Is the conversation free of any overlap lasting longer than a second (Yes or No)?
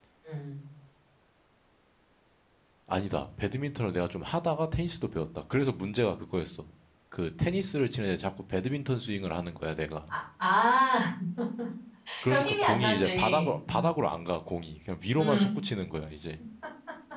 No